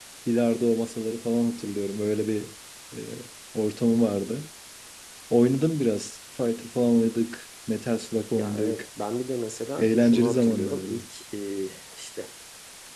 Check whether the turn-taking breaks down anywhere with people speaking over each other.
Yes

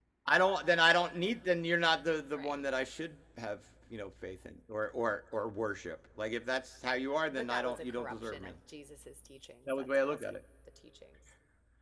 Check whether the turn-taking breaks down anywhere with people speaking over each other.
Yes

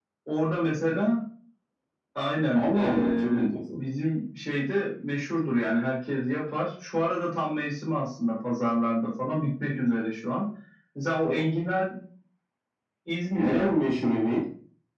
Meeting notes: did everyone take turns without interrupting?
No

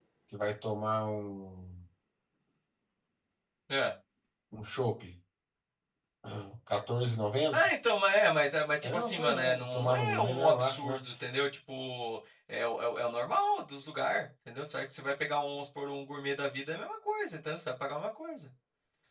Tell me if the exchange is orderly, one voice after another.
No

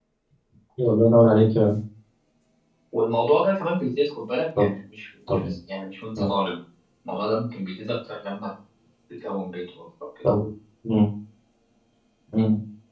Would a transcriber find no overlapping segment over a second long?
Yes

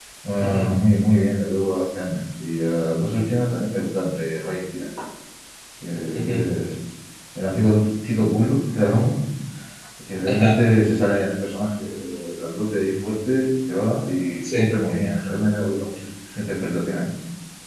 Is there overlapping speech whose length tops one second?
No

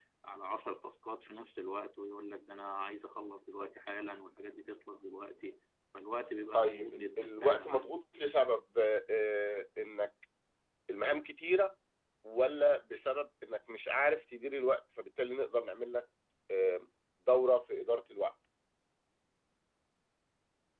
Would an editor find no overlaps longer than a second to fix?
No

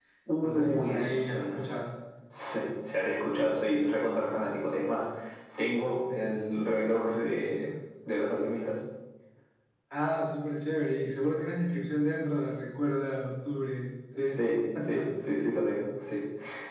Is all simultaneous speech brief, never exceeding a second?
No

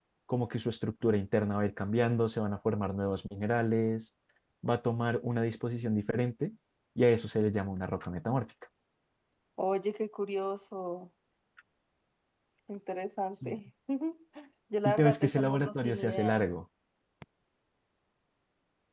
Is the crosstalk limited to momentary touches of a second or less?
No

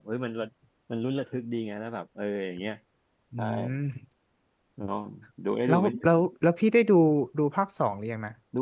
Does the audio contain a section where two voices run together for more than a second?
No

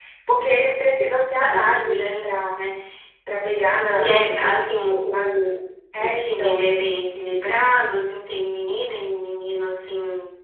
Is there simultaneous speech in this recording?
Yes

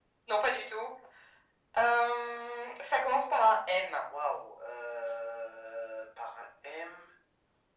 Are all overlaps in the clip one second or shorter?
Yes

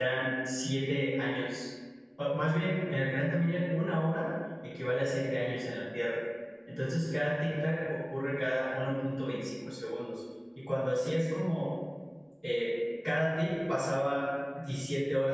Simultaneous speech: No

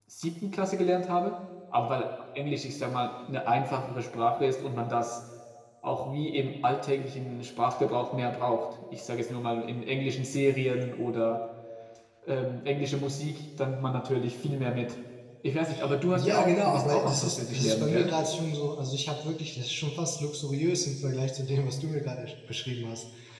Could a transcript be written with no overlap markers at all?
No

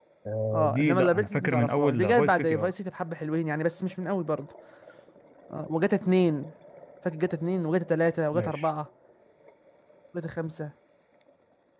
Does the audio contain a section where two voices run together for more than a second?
Yes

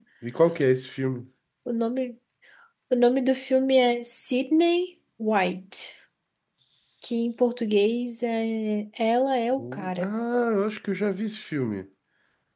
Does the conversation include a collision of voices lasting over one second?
No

